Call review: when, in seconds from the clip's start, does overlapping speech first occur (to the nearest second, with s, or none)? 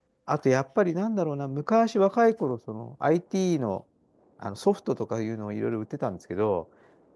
none